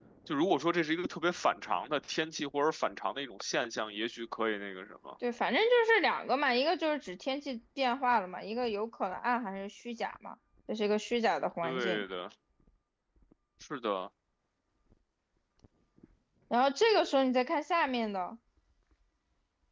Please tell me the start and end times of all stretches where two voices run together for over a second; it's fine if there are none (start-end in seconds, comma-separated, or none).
none